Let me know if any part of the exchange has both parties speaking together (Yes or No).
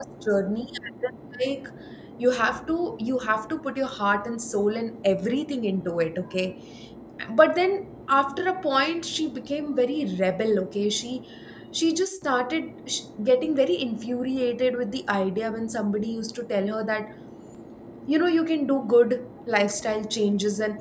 No